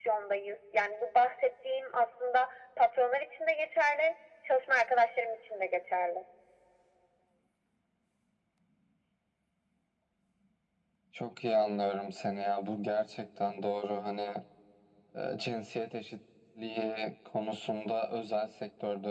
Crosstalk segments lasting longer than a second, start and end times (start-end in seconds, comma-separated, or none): none